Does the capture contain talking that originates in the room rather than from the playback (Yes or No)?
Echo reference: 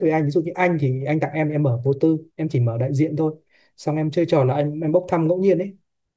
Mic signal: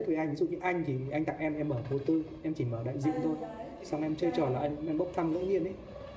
Yes